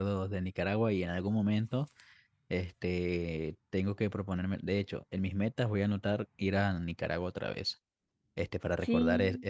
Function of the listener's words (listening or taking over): listening